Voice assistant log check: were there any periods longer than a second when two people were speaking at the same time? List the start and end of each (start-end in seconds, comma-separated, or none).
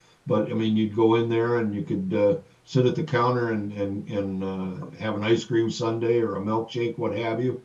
none